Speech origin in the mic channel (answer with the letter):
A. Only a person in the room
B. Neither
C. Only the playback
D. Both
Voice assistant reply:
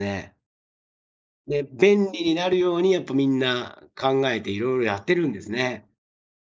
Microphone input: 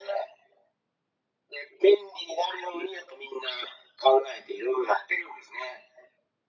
C